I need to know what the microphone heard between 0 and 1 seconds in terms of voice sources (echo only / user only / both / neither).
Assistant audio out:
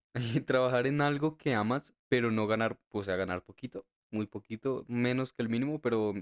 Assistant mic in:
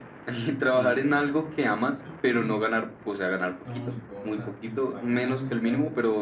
both